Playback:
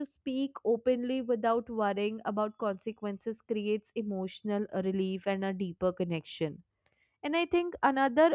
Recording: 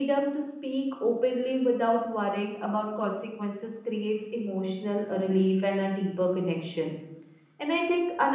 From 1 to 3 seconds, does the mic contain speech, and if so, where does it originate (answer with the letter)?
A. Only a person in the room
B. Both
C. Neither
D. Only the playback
D